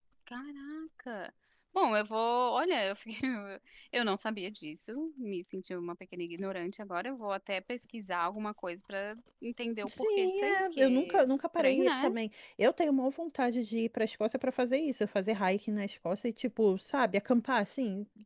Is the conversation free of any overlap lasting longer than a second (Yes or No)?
No